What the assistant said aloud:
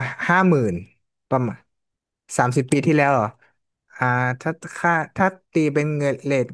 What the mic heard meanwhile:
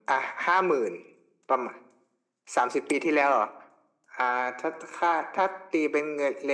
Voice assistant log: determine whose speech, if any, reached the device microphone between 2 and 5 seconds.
echo only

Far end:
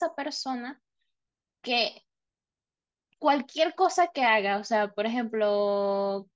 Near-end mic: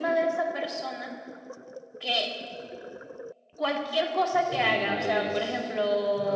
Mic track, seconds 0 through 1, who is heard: echo only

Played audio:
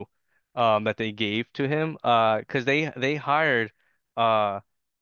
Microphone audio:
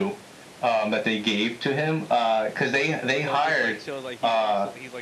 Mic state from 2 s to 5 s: both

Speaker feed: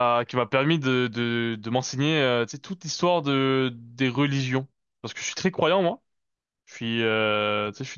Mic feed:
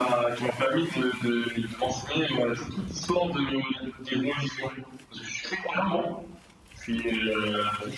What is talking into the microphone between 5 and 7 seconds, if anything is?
echo only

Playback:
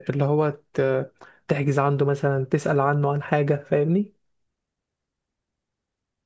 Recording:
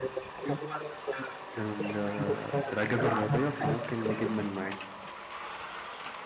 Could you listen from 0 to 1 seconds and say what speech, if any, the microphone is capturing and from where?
echo only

